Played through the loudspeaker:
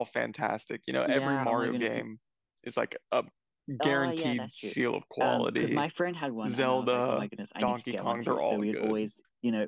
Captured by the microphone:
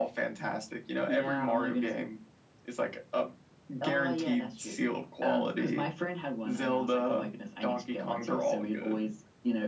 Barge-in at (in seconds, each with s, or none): none